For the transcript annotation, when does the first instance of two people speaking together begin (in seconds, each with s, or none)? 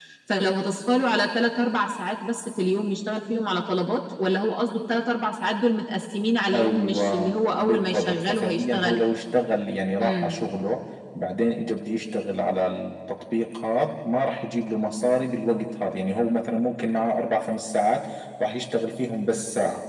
6.5 s